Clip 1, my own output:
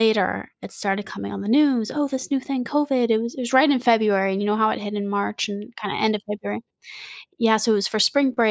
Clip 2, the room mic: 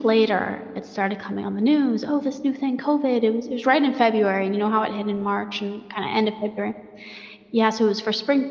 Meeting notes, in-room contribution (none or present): none